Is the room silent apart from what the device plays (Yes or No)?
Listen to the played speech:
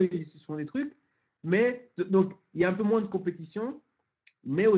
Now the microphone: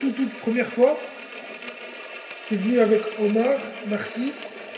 No